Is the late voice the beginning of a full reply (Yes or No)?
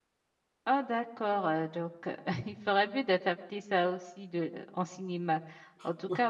No